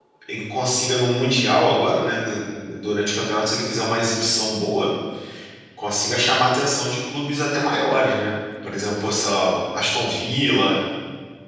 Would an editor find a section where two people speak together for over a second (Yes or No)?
No